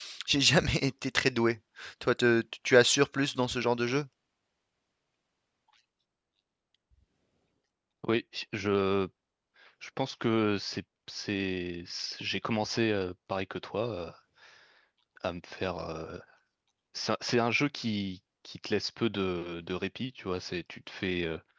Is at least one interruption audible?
No

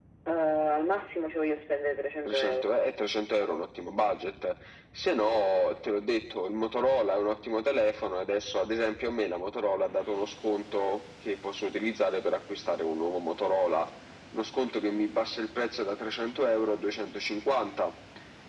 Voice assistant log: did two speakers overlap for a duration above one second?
No

